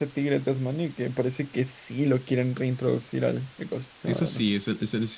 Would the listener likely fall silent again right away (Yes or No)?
No